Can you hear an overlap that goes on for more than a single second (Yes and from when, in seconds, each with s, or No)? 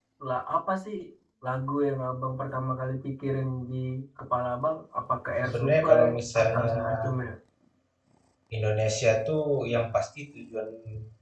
Yes, from 5.4 s